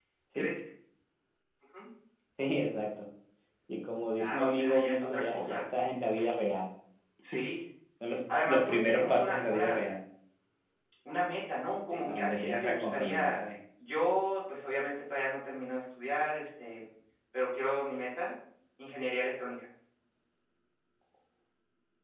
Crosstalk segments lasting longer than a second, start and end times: 4.2-5.6, 8.3-9.8, 11.9-13.4

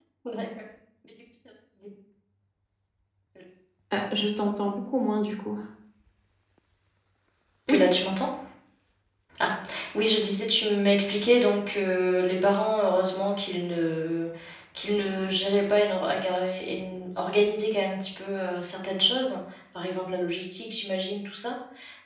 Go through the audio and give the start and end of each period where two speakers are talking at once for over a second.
none

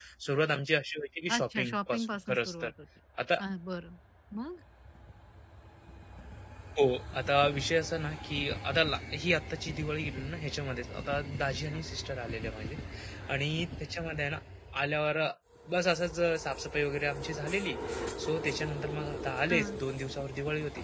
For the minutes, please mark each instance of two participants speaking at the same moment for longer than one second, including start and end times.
1.3-2.7

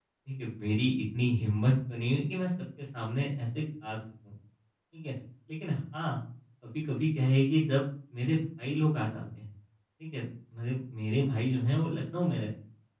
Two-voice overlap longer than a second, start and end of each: none

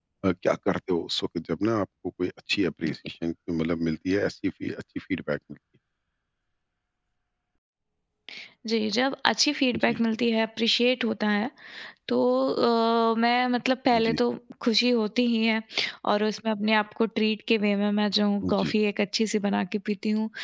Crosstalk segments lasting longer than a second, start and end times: none

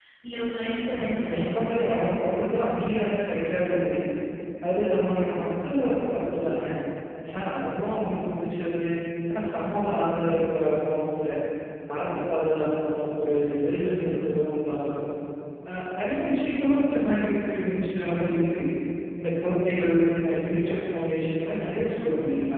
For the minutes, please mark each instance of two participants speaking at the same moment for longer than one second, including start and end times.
0.9-2.4

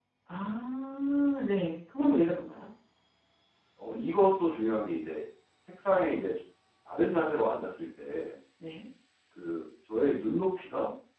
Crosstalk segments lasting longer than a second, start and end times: none

